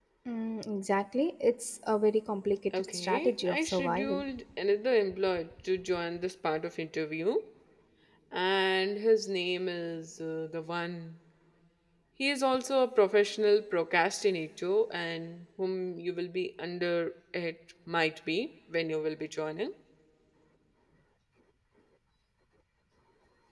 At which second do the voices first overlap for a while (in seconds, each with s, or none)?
2.7 s